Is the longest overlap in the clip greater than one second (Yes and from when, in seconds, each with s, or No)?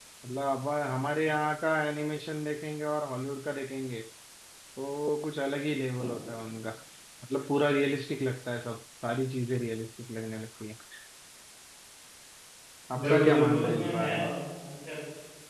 Yes, from 13.0 s